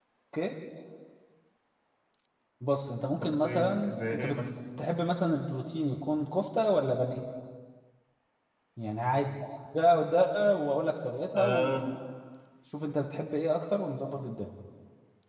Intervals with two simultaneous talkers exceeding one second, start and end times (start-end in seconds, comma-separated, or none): 3.2-4.4